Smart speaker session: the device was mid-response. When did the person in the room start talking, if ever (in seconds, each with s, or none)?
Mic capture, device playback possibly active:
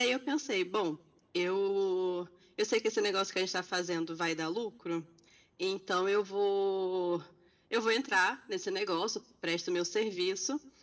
none